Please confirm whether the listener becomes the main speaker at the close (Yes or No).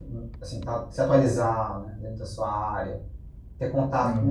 No